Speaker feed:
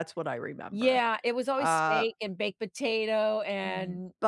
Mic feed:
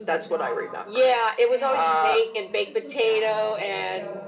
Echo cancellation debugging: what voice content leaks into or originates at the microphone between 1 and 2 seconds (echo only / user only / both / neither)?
both